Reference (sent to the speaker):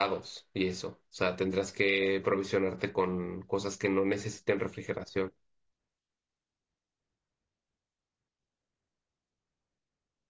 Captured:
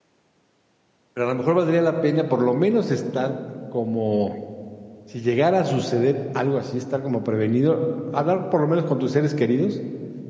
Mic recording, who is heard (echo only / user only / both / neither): user only